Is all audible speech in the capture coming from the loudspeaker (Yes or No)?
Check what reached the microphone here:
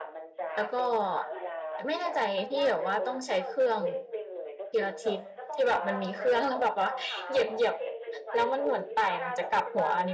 No